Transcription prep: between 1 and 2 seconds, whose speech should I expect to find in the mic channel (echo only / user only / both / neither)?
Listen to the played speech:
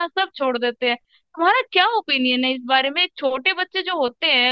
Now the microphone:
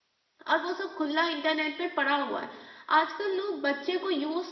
user only